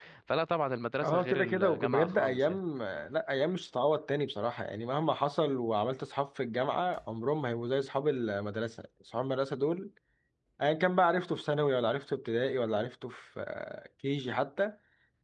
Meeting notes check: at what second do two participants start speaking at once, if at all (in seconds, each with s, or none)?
1.0 s